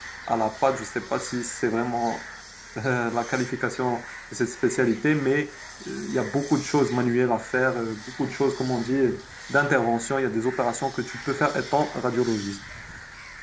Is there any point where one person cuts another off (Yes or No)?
No